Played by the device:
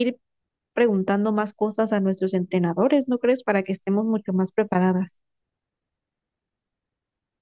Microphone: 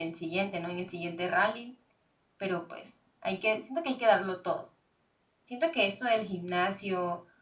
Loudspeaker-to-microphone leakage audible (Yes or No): No